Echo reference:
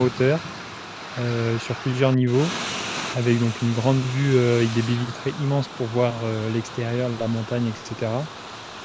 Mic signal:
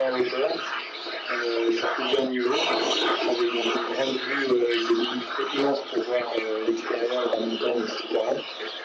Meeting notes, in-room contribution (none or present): none